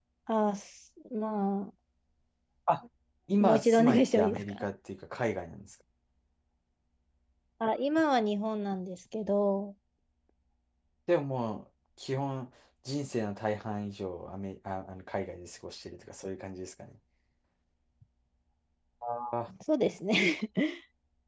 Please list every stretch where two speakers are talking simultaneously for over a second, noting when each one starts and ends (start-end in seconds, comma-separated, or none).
3.4-4.7